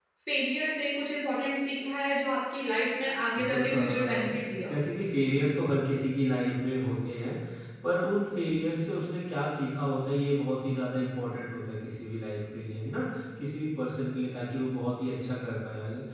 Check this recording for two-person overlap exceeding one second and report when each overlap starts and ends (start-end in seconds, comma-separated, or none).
3.4-4.7